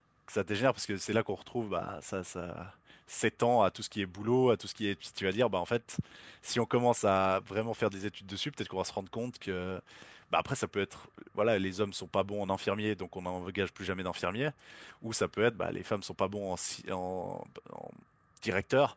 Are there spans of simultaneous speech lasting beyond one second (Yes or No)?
No